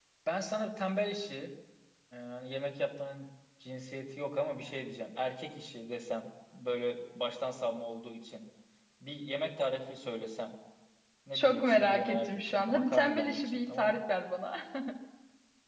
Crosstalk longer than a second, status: present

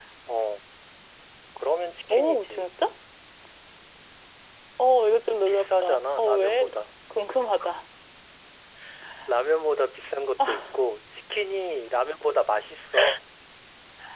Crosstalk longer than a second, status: present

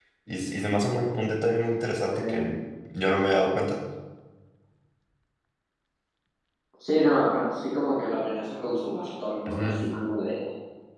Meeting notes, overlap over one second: none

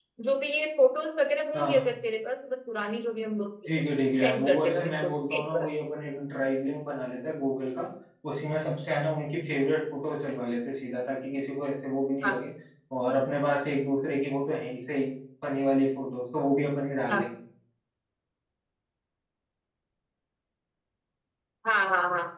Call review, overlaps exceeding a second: present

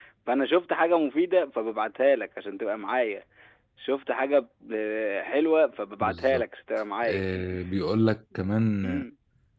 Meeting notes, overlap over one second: none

